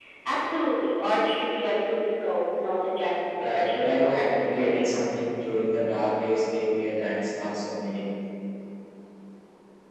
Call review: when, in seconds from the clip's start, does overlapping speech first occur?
3.4 s

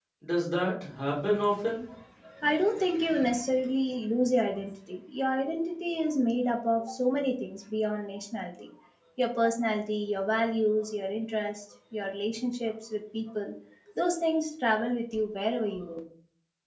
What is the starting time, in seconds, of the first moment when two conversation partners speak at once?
none

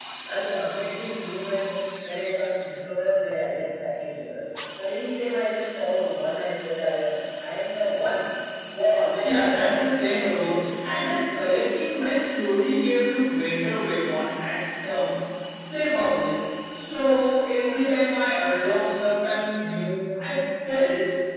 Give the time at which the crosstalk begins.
9.2 s

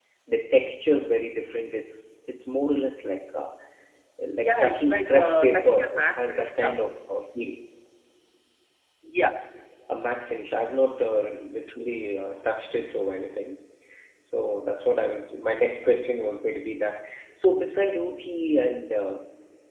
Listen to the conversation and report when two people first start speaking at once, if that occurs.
4.4 s

